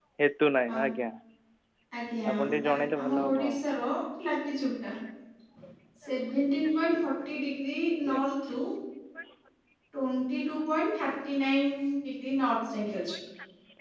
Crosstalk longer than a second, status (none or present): present